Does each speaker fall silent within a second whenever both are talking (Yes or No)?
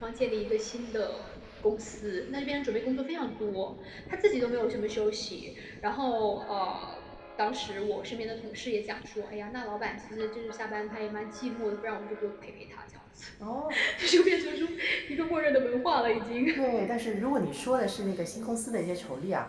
Yes